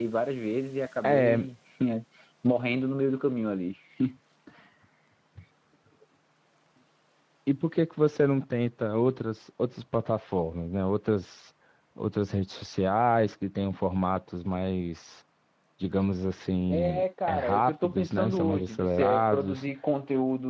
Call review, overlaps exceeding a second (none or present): present